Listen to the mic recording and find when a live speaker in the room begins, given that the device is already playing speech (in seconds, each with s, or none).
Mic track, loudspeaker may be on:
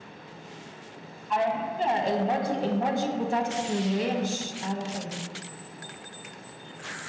none